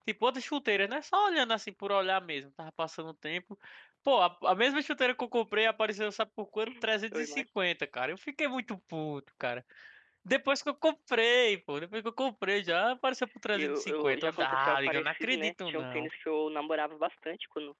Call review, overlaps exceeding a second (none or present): present